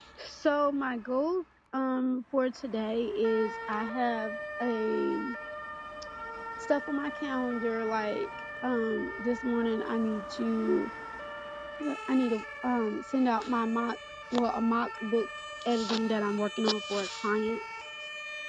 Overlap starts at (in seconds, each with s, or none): none